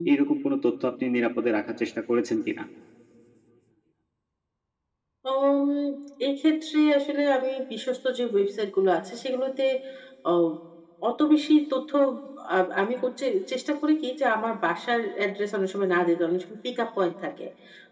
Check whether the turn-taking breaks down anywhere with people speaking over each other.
No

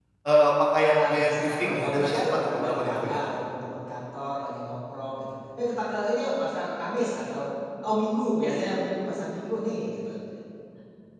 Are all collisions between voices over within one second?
No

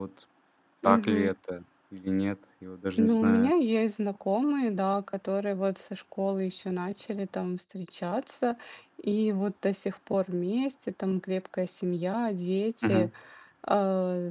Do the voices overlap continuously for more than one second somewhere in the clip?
No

